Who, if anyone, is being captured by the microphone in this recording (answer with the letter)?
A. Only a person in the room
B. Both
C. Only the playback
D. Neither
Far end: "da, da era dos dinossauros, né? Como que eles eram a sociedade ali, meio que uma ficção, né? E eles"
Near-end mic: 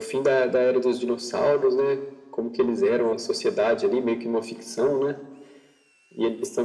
C